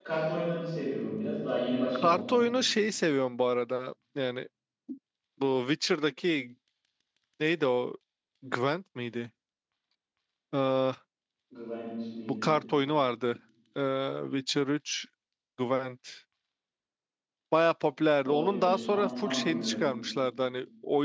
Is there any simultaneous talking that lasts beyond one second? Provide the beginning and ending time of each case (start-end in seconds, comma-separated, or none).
18.2-19.8